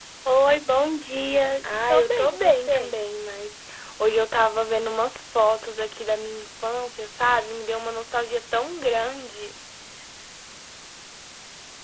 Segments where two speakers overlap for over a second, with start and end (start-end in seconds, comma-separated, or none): 1.6-2.9